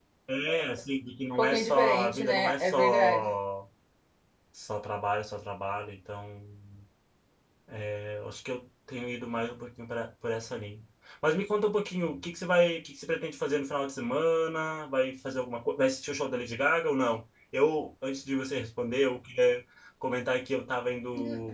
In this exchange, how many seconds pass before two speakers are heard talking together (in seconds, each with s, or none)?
1.4 s